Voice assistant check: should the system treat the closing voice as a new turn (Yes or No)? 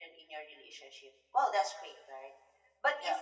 No